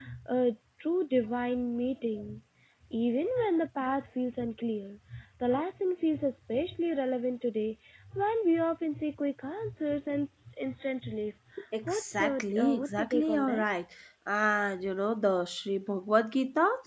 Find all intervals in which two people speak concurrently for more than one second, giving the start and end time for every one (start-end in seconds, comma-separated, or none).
11.8-13.6